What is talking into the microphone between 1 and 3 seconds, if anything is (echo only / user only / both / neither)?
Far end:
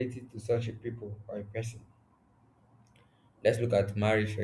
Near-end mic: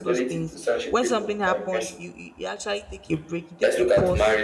both